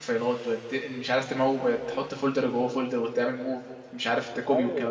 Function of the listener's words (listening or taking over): taking over